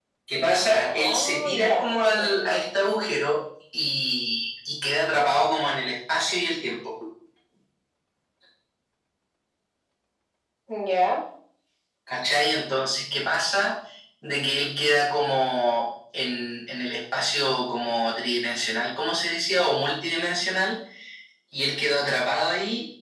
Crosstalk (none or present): present